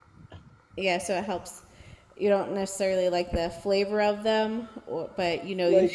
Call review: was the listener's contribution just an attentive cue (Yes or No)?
No